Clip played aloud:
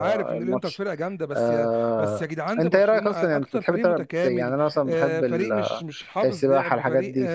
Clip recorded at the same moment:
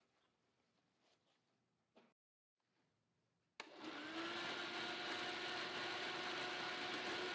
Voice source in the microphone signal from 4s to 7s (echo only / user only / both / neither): neither